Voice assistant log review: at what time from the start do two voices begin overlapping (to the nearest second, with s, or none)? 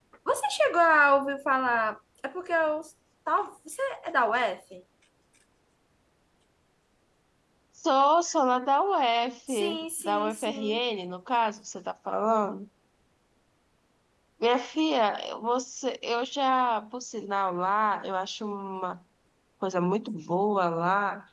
9 s